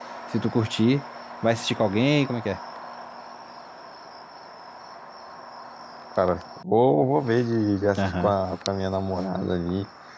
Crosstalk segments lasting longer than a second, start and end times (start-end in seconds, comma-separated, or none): none